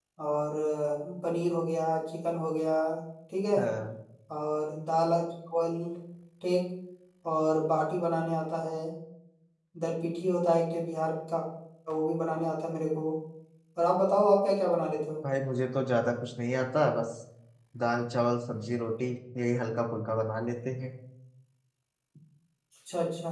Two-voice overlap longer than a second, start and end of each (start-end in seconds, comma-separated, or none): none